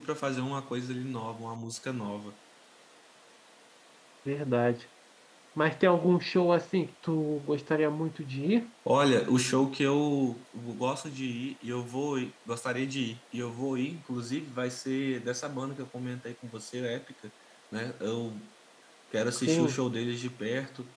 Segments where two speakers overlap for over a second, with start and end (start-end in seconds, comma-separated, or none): none